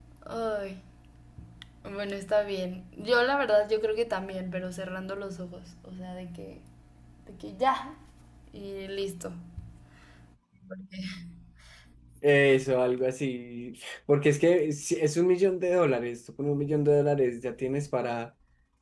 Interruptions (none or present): none